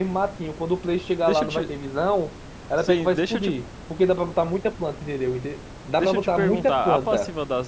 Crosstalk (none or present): present